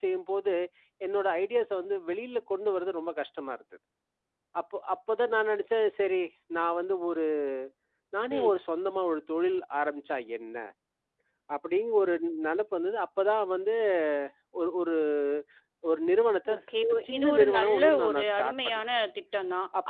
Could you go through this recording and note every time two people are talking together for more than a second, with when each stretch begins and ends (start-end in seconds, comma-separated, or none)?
17.2-18.8